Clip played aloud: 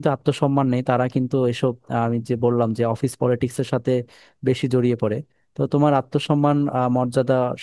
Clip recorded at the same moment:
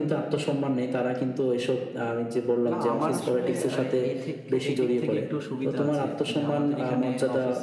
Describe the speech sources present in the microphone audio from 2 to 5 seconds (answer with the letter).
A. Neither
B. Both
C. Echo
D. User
B